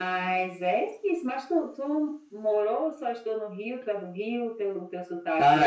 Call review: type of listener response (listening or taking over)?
taking over